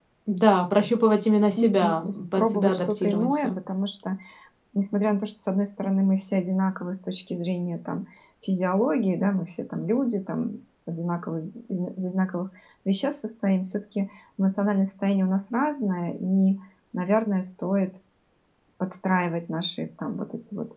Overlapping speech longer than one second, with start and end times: 1.6-3.6

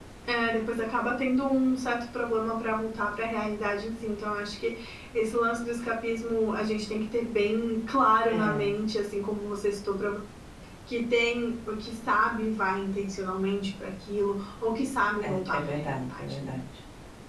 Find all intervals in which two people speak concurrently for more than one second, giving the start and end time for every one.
15.3-16.6

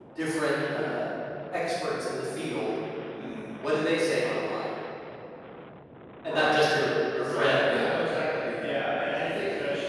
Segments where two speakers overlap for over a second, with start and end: none

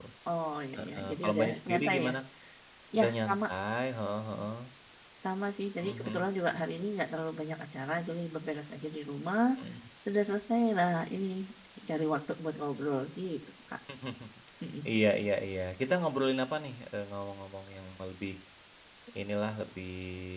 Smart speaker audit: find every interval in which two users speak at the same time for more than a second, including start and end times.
0.8-2.1

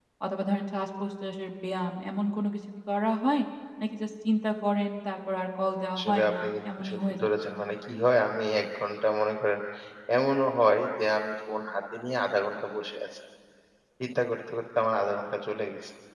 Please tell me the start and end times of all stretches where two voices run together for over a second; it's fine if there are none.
6.0-7.3

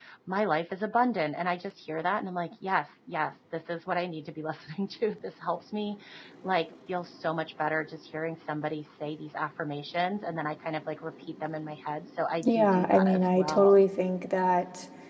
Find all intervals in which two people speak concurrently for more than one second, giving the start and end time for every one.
12.4-13.8

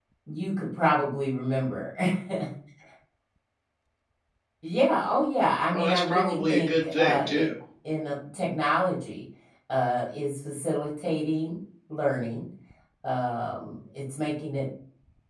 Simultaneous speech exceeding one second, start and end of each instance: 5.7-7.5

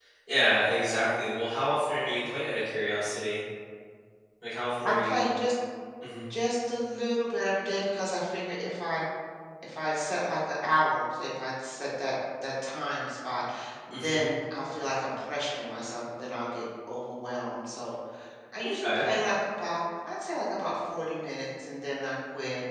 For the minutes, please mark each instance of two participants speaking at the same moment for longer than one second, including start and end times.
none

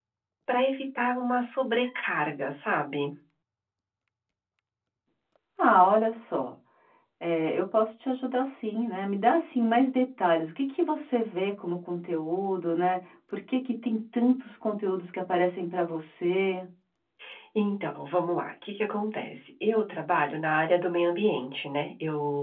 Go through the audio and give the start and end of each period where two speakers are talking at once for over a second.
none

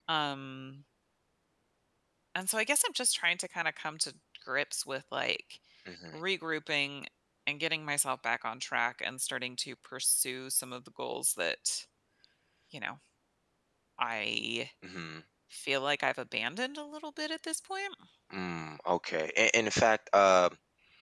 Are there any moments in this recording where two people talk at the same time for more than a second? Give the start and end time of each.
none

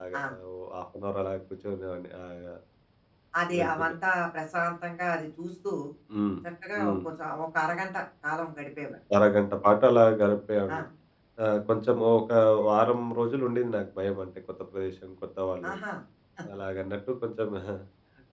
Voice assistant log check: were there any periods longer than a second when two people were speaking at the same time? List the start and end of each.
none

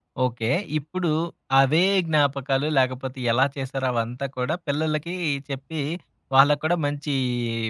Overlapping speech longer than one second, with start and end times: none

